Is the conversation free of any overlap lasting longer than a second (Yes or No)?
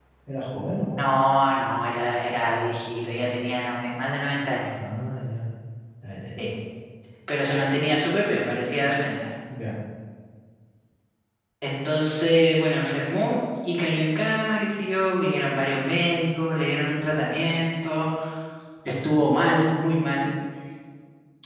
Yes